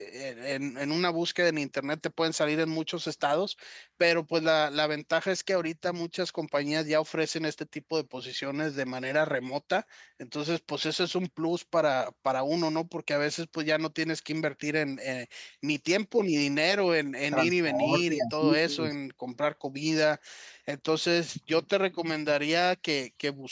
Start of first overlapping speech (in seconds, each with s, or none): 17.3 s